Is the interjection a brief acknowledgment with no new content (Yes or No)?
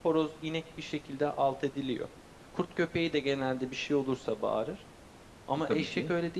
Yes